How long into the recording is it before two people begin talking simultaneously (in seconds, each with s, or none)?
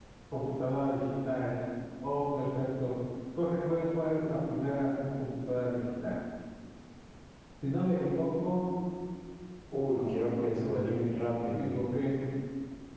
9.9 s